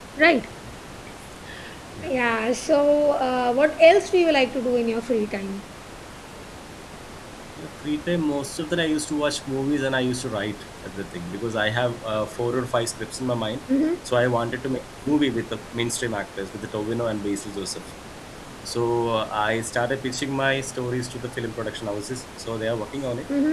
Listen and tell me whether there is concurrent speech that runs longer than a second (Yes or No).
No